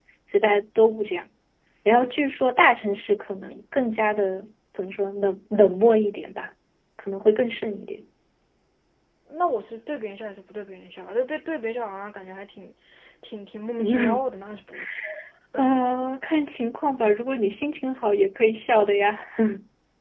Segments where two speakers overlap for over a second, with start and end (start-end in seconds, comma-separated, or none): none